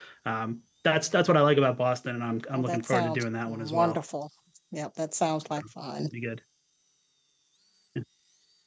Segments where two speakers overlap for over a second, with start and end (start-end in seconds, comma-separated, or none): 2.5-4.0